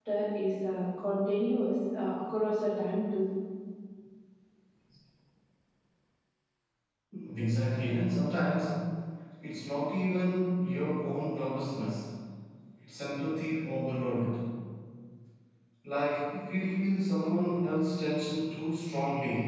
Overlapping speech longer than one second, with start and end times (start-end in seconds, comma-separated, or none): none